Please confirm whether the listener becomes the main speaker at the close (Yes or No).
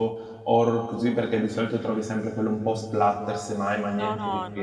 Yes